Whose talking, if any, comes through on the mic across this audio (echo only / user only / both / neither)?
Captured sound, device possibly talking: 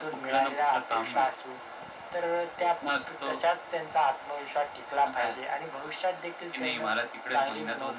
echo only